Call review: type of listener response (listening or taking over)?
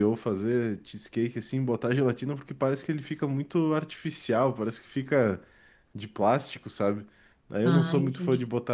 listening